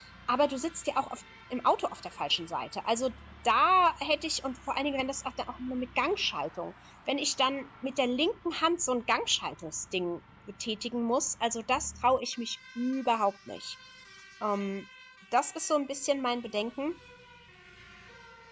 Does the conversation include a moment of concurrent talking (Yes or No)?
No